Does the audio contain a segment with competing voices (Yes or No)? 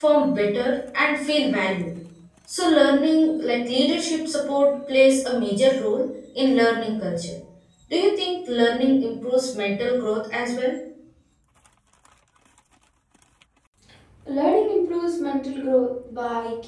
No